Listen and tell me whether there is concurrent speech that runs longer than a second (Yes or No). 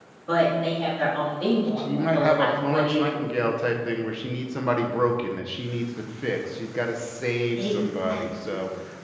Yes